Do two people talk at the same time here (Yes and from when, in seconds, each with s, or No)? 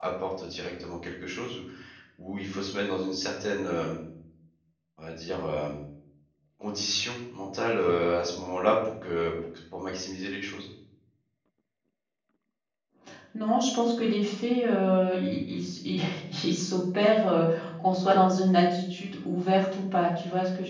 No